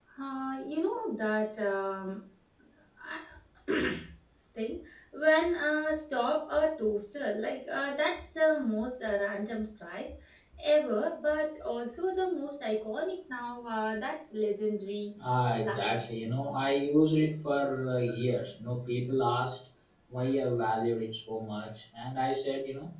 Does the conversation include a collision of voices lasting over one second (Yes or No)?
No